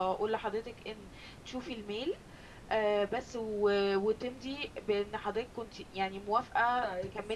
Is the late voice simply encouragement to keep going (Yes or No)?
No